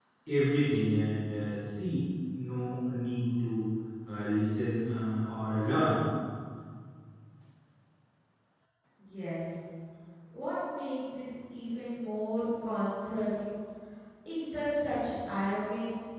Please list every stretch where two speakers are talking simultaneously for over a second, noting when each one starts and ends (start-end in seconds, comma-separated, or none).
none